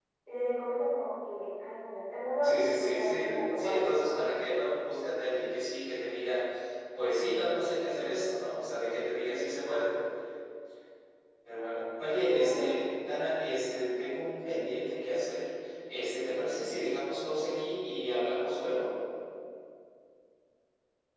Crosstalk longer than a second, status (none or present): present